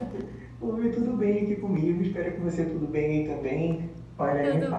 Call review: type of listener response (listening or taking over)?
listening